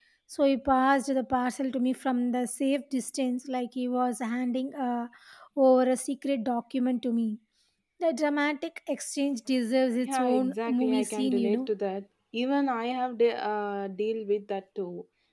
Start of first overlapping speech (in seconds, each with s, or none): 10.0 s